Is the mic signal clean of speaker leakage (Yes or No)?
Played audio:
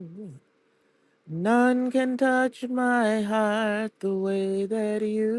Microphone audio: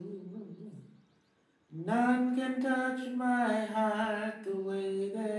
No